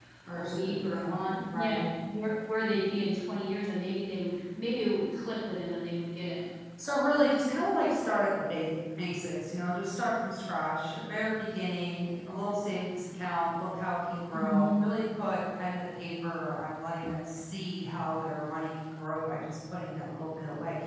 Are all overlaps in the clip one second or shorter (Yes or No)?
No